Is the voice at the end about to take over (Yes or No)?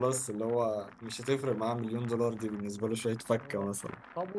Yes